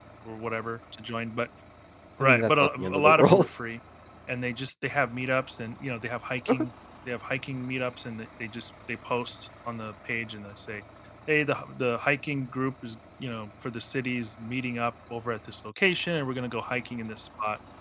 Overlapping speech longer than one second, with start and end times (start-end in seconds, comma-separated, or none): 2.2-3.5